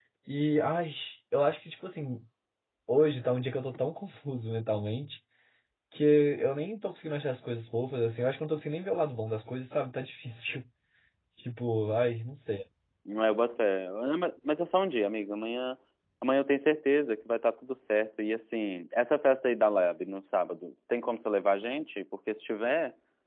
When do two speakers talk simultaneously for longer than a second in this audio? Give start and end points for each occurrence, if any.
none

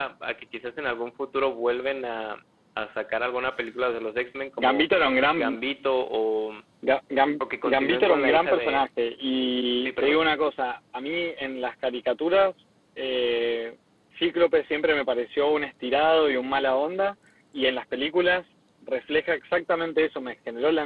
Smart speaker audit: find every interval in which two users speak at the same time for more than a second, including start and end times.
7.4-8.8

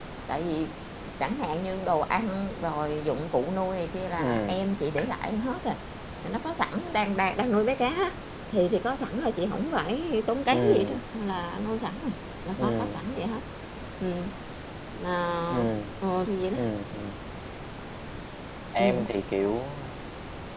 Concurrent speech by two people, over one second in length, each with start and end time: none

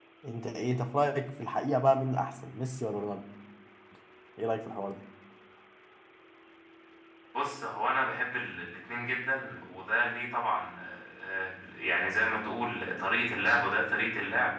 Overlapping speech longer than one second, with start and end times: none

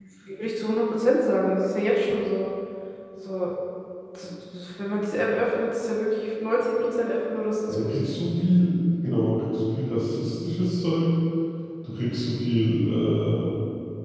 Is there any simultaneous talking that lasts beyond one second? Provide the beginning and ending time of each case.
none

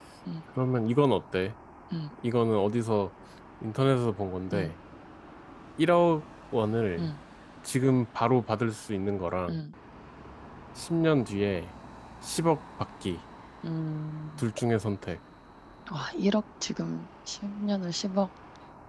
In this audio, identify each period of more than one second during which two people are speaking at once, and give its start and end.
none

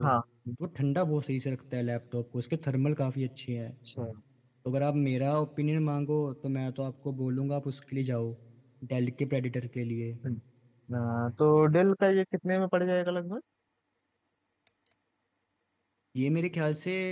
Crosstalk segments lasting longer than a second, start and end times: none

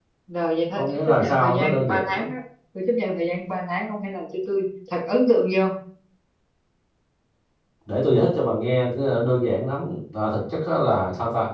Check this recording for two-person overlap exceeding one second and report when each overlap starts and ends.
0.8-2.2

